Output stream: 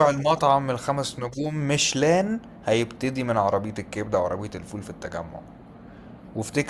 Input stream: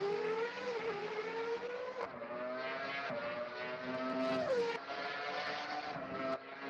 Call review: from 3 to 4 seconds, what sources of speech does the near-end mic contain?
neither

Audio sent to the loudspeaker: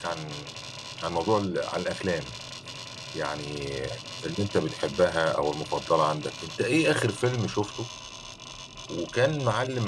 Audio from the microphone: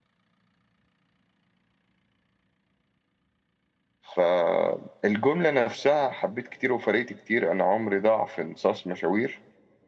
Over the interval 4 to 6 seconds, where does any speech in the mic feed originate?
user only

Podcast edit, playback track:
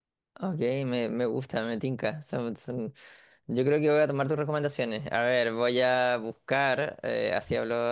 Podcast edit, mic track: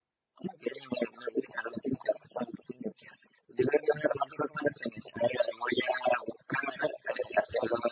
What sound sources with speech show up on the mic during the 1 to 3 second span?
echo only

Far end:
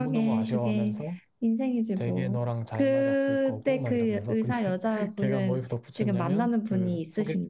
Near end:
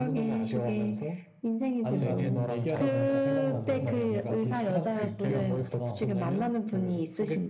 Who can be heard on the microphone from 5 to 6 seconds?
both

